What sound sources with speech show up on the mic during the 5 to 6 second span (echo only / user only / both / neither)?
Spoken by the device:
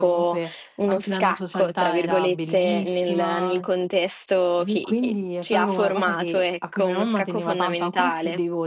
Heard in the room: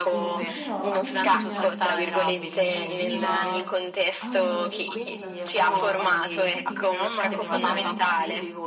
both